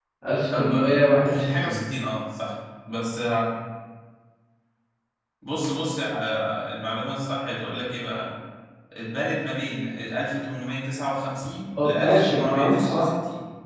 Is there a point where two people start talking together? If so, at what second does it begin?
0.5 s

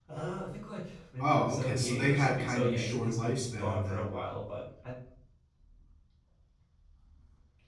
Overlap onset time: 1.2 s

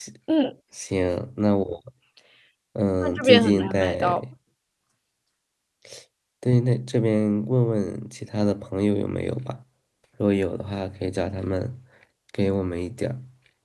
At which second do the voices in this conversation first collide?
3.0 s

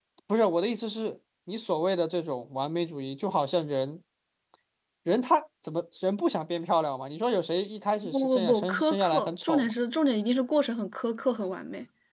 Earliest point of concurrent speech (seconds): 8.0 s

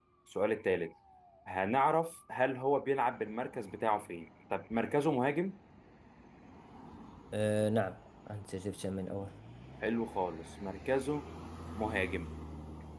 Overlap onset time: none

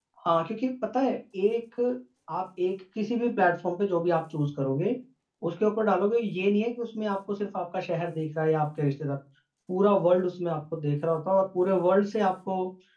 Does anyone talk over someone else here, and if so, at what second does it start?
none

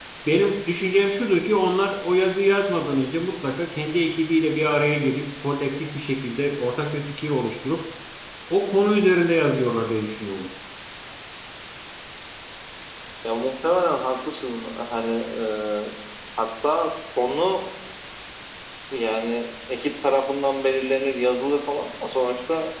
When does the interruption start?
none

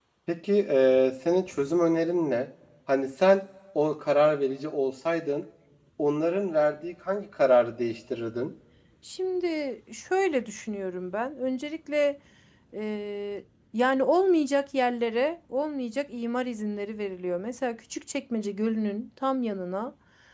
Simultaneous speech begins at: none

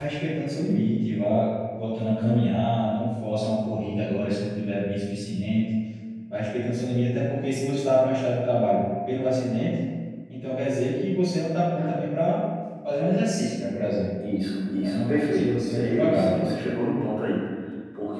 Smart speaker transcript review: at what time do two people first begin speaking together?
14.8 s

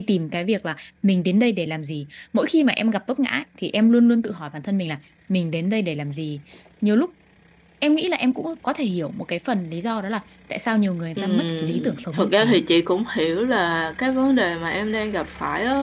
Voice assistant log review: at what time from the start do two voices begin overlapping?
11.2 s

